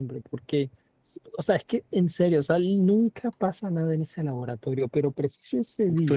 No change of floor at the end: No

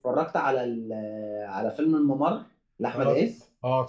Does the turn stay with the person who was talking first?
No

